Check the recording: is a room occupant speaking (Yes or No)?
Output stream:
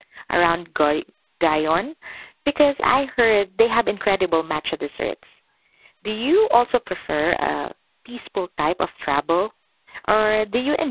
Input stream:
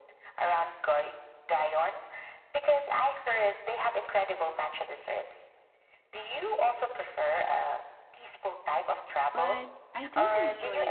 Yes